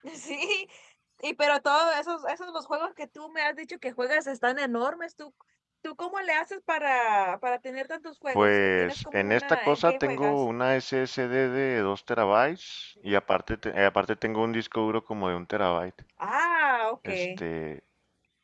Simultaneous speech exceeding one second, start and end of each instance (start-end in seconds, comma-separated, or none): 8.3-10.4